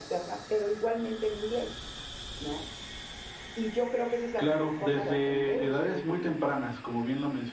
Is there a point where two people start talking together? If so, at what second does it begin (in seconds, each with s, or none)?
4.4 s